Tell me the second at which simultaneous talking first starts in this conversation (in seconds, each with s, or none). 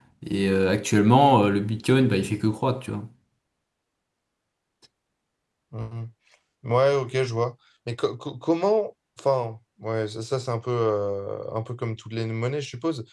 none